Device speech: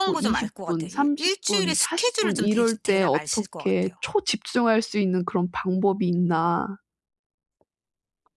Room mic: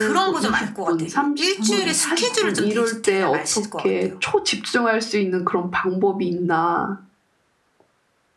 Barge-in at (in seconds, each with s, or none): 1.5 s